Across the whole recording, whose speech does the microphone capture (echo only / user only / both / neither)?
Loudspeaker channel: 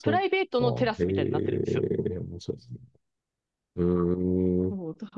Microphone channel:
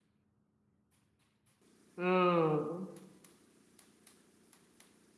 user only